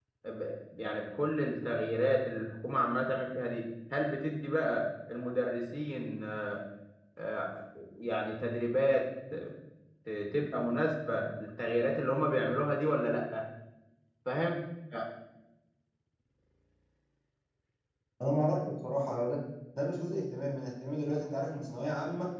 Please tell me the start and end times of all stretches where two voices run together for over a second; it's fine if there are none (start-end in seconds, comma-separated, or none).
none